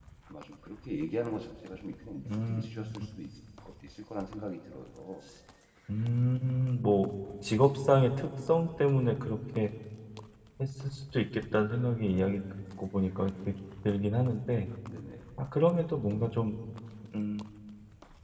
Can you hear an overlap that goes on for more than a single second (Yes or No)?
No